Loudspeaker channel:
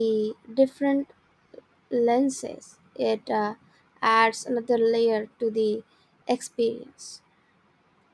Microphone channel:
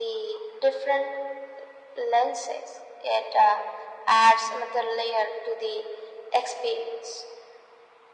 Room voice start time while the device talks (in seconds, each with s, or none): none